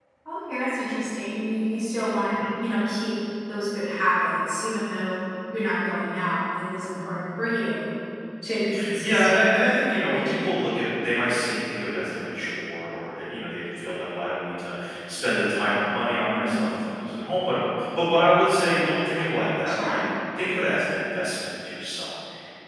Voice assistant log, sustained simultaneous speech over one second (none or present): present